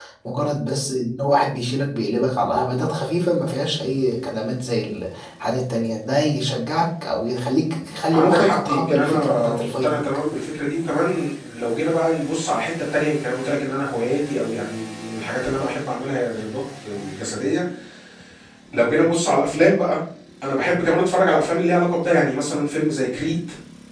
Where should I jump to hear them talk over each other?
8.1 s

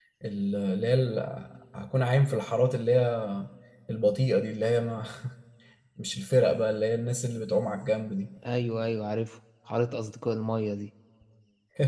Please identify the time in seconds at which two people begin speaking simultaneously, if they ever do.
none

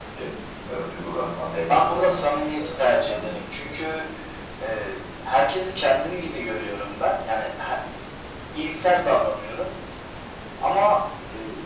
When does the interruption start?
1.6 s

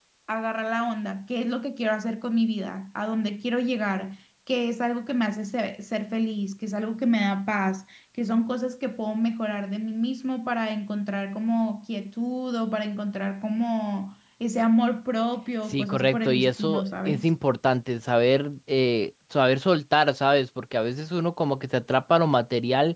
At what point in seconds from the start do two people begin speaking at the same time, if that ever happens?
15.7 s

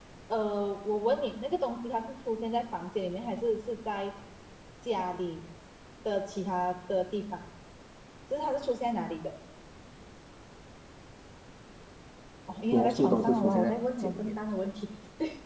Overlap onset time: 12.7 s

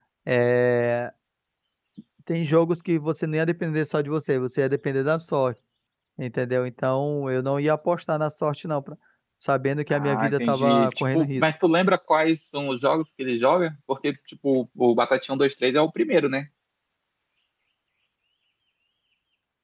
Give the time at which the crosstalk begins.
9.9 s

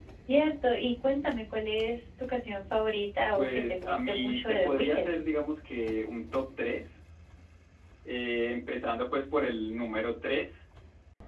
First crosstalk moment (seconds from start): 3.4 s

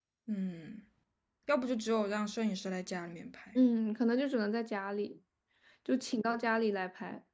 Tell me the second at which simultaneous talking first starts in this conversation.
none

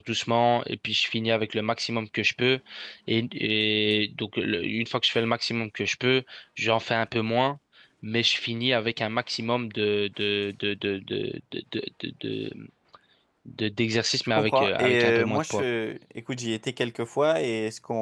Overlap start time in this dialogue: 14.4 s

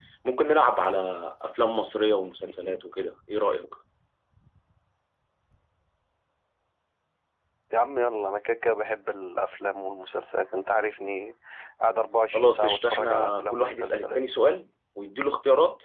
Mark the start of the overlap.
12.3 s

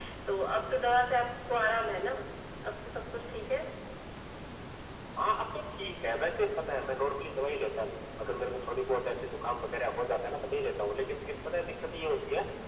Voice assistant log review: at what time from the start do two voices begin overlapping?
none

